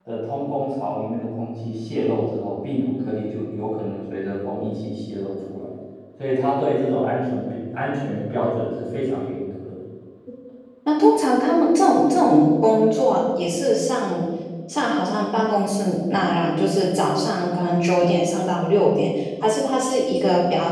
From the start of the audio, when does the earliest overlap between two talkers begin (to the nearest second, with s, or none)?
none